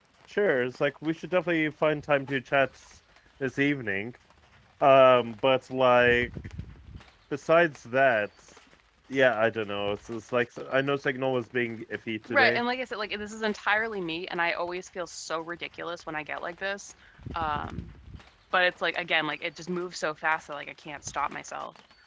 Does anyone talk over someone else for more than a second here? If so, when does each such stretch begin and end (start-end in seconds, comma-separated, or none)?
none